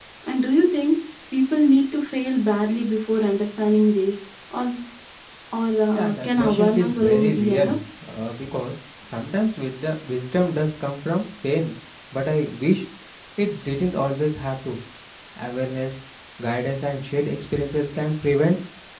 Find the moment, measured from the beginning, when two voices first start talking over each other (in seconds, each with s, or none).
5.9 s